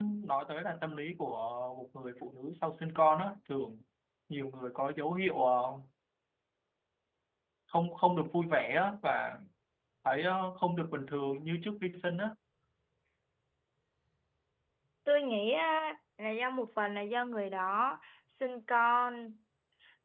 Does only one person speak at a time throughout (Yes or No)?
Yes